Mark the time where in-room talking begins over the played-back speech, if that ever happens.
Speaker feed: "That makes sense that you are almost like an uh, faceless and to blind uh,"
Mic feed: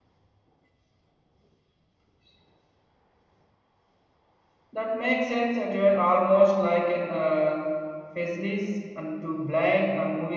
none

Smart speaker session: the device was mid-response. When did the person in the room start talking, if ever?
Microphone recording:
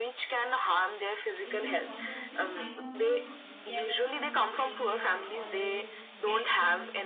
1.5 s

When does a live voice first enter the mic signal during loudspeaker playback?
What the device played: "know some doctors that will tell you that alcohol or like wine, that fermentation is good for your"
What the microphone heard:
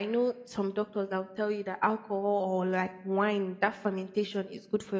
none

